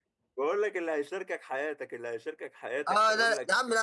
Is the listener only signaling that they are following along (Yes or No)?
No